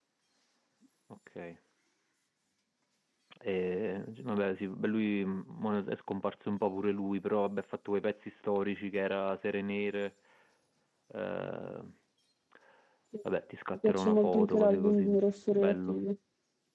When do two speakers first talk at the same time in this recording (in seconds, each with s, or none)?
13.7 s